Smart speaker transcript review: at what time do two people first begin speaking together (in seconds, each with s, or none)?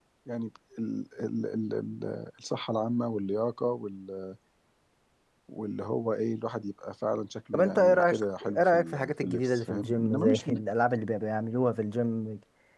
7.5 s